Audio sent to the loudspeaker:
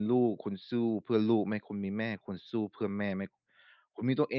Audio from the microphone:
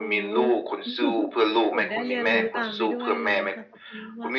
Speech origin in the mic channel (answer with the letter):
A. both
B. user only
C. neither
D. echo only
A